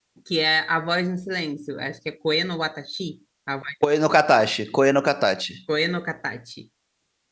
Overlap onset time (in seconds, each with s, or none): none